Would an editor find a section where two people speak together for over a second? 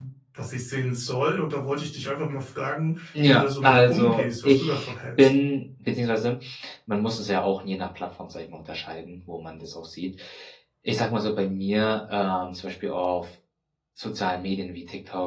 Yes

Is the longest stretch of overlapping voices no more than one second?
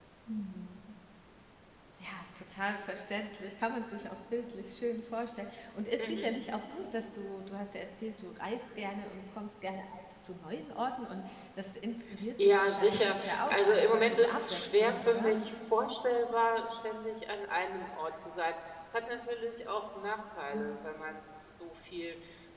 No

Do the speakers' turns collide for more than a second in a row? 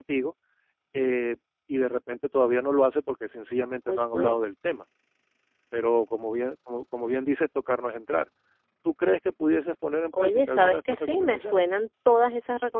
Yes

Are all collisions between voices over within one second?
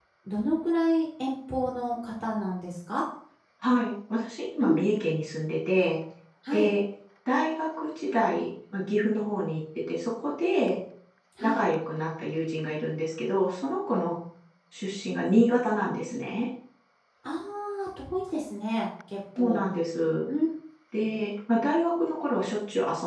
Yes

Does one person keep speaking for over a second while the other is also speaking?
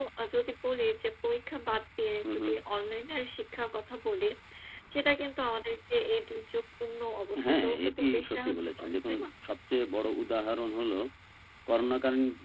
Yes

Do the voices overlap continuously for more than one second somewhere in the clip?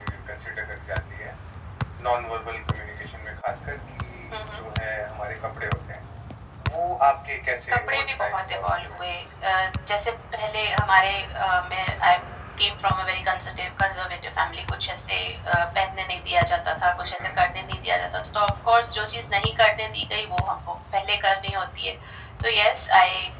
Yes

